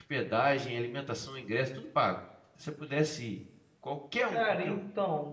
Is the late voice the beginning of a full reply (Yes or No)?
Yes